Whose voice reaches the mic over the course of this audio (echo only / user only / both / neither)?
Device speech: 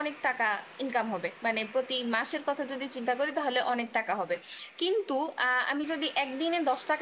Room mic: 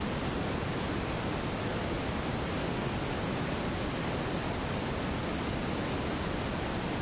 neither